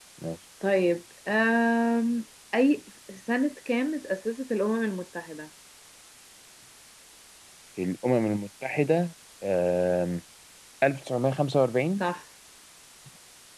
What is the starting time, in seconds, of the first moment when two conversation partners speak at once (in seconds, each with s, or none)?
none